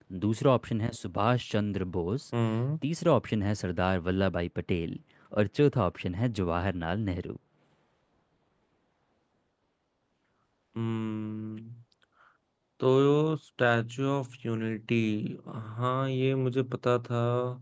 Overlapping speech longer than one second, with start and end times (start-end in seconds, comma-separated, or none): none